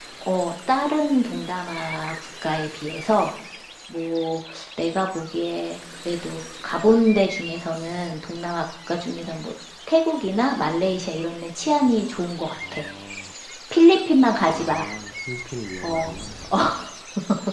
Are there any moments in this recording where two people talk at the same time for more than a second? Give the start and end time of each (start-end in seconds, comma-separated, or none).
none